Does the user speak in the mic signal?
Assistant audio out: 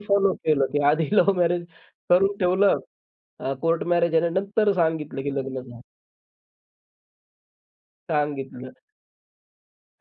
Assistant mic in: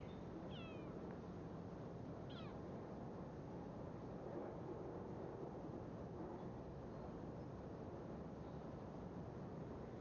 No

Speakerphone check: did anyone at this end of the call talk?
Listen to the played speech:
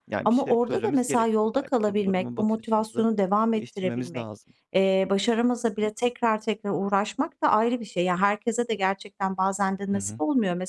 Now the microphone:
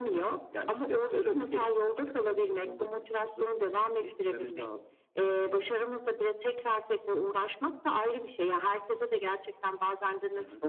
No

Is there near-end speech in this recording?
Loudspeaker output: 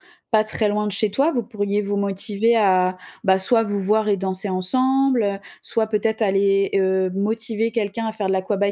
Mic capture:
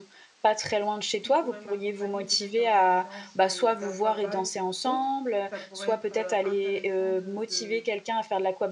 Yes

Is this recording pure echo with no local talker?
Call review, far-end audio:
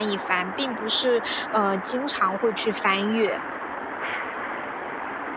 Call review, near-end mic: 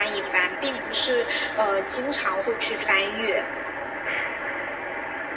Yes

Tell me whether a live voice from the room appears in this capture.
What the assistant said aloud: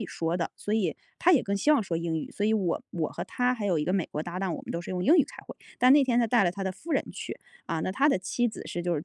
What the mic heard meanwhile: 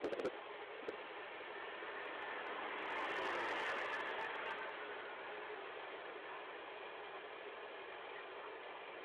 No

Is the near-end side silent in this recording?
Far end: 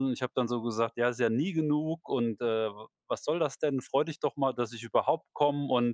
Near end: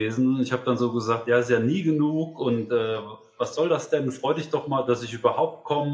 Yes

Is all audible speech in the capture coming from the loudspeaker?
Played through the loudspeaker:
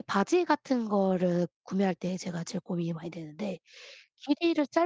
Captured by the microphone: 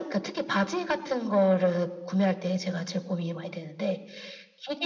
Yes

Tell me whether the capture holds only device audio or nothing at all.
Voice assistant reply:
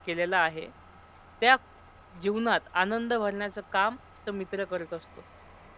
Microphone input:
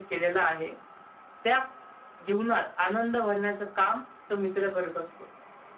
Yes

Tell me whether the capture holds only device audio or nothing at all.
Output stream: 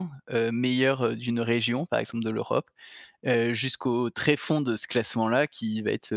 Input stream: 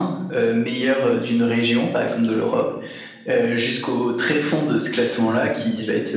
No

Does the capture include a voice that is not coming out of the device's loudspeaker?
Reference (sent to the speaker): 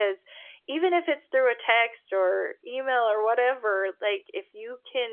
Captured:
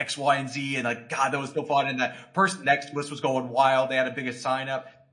Yes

